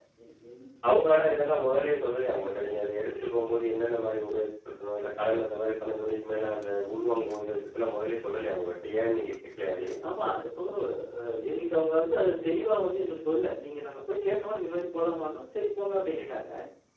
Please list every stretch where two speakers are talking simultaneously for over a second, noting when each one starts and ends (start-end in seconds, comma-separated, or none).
none